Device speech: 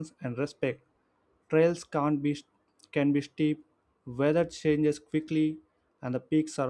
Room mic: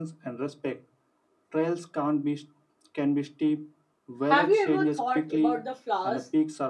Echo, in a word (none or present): present